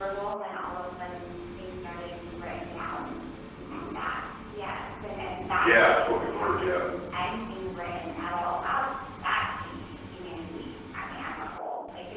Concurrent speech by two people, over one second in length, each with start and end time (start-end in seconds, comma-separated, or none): 5.6-6.8